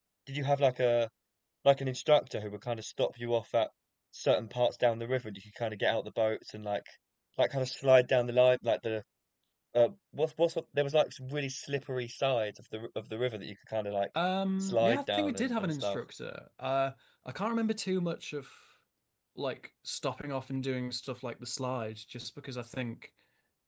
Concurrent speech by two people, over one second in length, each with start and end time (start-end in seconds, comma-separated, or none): 14.6-16.0